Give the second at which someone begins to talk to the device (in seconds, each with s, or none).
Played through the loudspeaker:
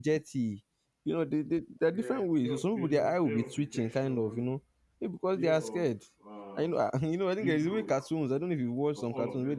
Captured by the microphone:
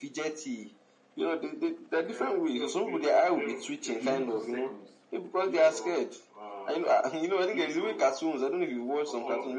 4.0 s